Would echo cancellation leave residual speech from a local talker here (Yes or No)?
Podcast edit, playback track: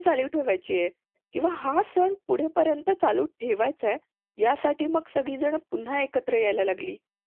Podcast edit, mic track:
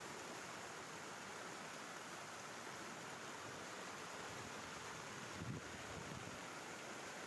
No